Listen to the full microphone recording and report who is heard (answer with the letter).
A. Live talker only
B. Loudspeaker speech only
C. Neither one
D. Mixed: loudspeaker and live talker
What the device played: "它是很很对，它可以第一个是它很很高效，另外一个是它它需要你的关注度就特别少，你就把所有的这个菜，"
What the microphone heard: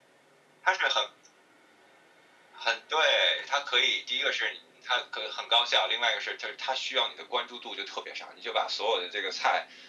B